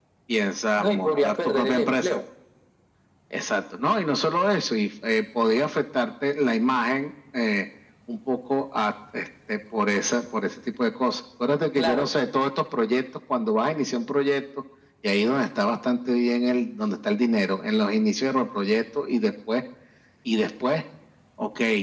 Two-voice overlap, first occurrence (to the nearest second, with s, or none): 1 s